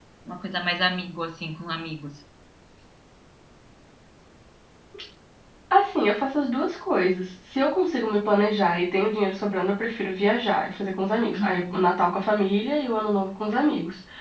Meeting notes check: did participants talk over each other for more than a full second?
No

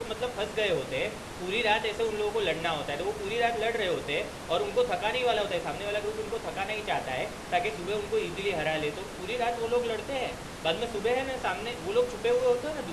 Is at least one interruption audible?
No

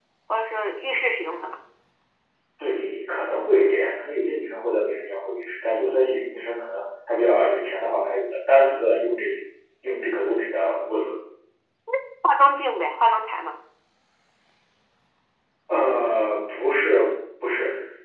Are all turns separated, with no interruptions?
Yes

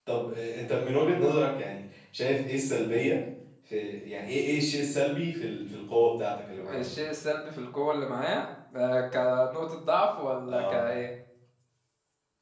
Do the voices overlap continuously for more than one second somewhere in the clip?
No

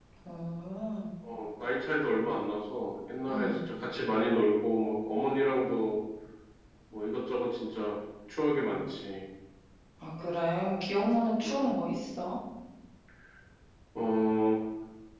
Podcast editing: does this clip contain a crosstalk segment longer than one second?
No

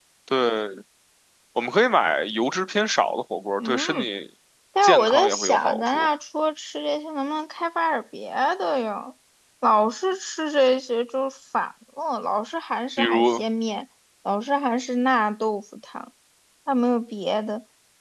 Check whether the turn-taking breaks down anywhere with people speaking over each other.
Yes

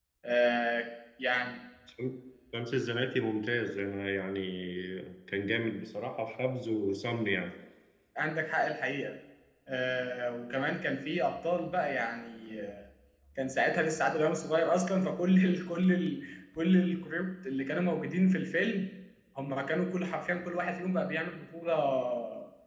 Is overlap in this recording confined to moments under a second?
Yes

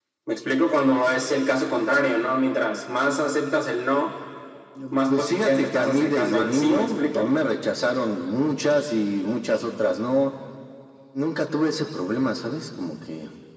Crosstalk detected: Yes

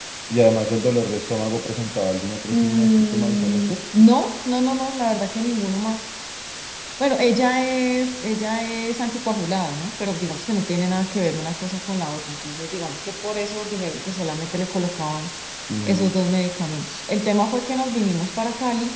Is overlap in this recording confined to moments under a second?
No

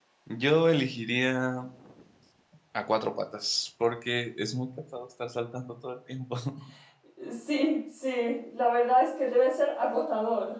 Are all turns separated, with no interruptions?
Yes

